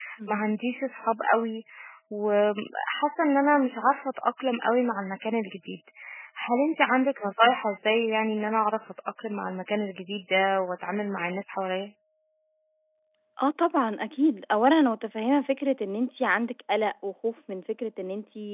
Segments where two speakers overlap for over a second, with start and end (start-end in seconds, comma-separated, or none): none